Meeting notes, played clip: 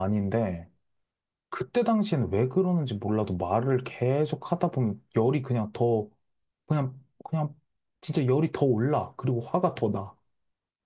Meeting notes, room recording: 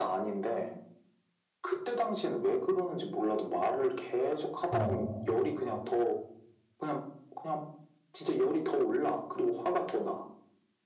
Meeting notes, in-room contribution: present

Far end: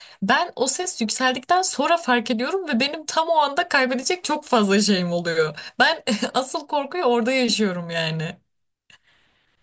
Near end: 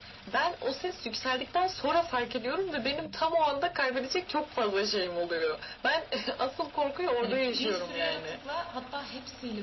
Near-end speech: present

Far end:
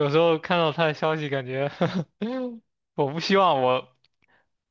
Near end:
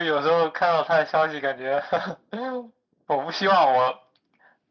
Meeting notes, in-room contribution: none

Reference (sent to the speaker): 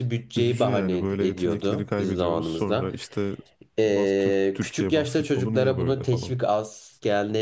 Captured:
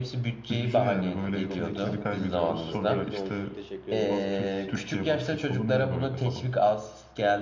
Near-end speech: present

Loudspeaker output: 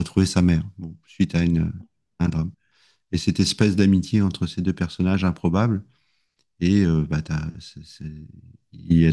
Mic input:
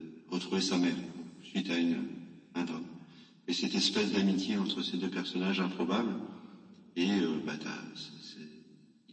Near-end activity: none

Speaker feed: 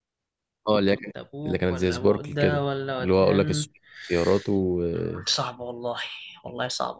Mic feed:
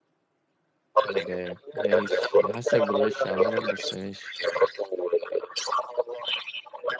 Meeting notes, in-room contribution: present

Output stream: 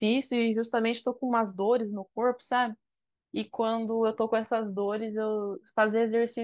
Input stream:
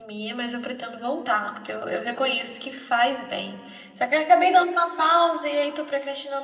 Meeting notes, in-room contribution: present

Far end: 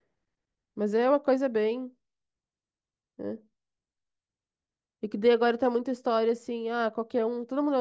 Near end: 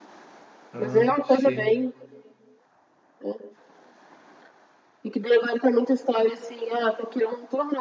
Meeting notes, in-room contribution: present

